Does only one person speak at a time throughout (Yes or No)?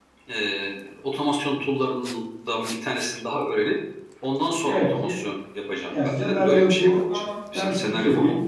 No